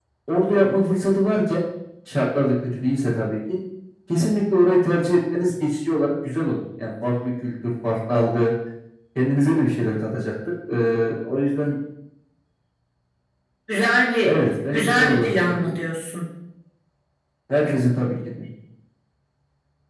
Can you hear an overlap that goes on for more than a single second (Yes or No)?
Yes